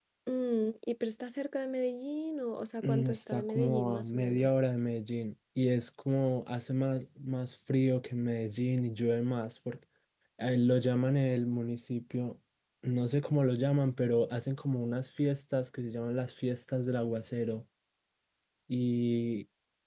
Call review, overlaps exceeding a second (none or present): present